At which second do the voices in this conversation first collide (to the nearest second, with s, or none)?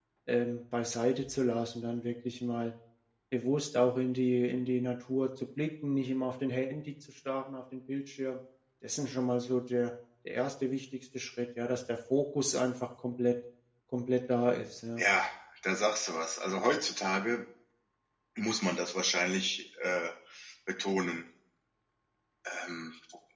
none